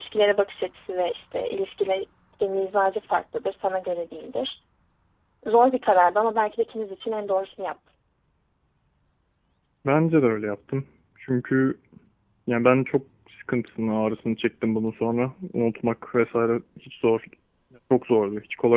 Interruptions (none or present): none